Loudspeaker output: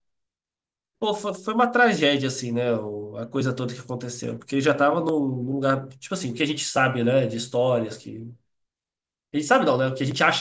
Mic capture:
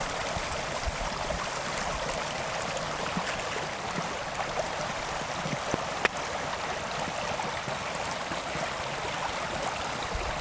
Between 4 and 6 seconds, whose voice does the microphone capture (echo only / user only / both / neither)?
neither